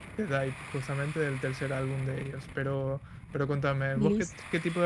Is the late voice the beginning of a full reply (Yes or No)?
No